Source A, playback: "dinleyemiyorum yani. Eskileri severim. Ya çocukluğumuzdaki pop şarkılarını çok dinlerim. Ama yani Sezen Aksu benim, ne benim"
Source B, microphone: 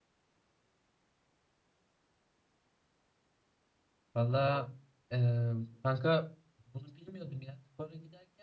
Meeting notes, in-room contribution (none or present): present